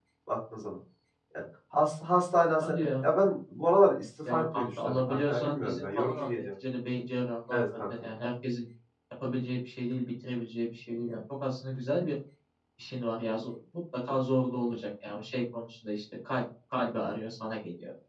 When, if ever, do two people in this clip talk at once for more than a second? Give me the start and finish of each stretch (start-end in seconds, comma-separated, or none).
4.3-6.4